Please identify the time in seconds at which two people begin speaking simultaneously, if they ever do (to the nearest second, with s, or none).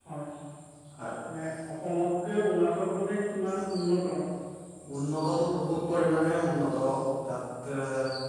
none